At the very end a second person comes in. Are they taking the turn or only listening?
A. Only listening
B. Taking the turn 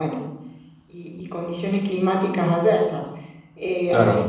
A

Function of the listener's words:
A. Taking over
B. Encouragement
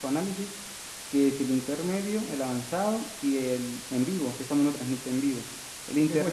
A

